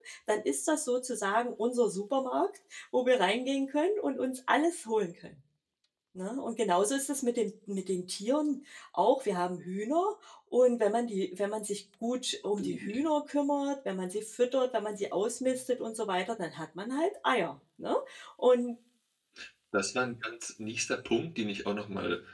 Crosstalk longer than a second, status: none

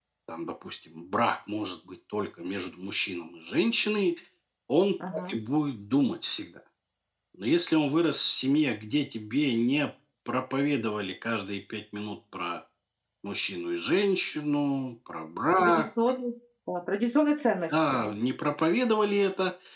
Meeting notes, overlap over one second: none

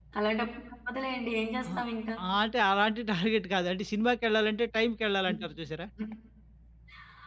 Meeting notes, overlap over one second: none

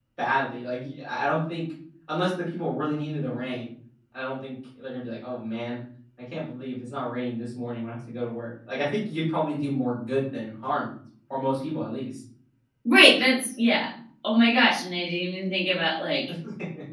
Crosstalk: none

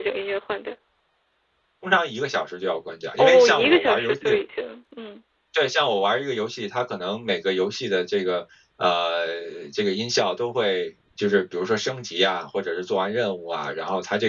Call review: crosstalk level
present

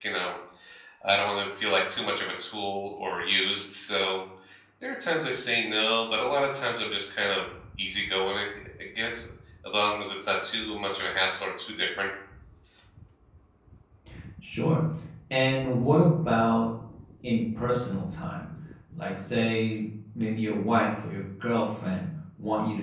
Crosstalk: none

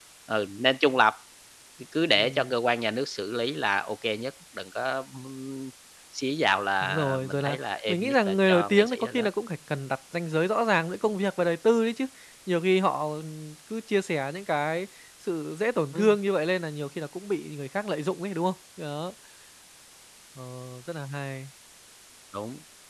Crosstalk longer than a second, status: present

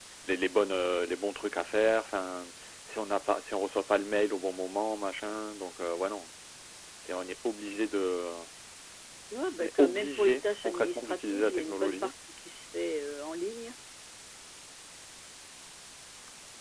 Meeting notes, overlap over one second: present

